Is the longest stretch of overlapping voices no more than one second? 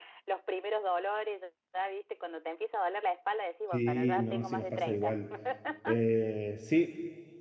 No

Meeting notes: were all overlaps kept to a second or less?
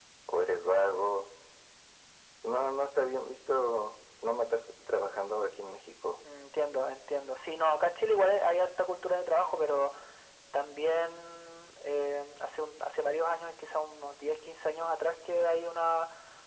Yes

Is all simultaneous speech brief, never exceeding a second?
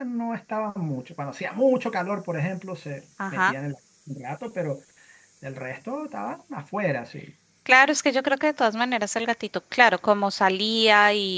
Yes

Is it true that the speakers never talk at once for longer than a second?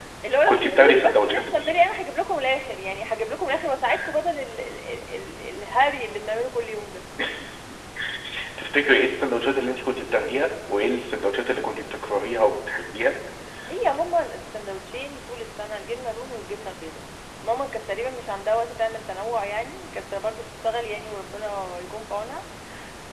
No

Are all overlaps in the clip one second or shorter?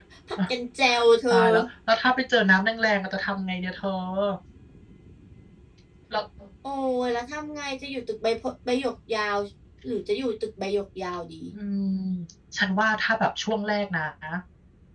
Yes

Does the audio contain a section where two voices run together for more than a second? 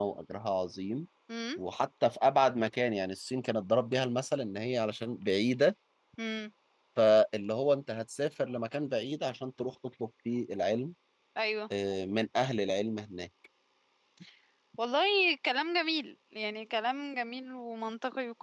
No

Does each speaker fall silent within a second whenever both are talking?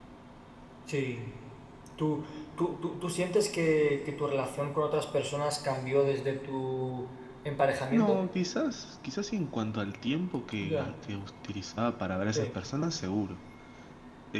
Yes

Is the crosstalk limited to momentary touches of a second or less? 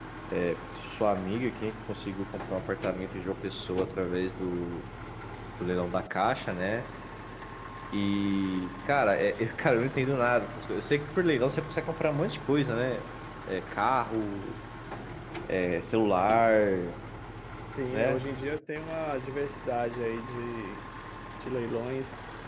Yes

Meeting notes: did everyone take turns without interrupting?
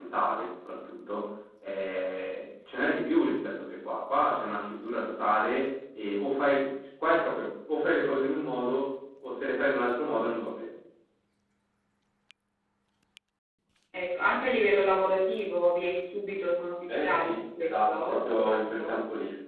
No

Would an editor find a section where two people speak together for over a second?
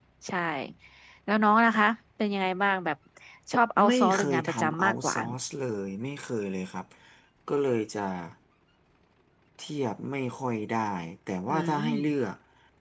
Yes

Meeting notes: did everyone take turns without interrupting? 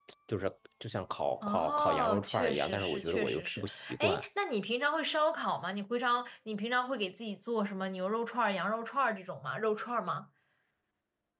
No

